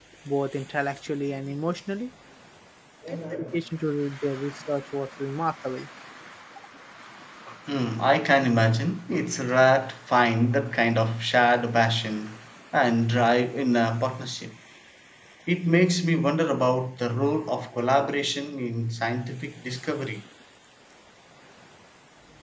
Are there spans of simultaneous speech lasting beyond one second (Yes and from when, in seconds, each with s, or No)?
No